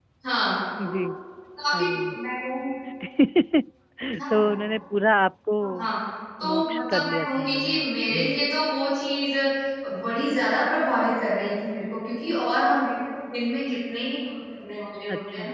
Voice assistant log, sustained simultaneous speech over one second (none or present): present